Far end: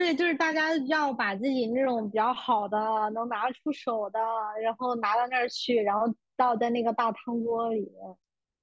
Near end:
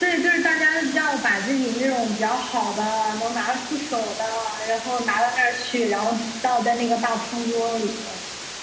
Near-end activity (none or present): none